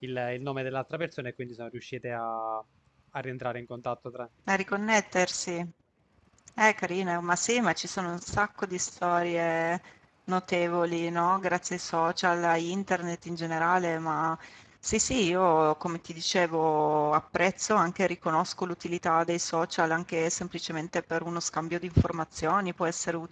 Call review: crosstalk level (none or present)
none